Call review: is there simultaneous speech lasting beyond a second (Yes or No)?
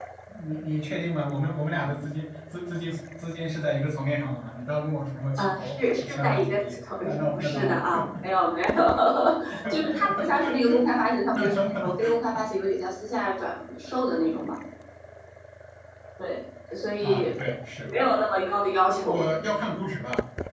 Yes